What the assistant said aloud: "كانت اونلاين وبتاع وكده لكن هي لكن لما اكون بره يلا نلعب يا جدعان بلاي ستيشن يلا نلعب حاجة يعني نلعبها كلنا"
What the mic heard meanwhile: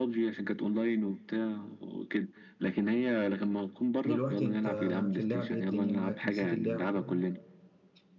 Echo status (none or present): present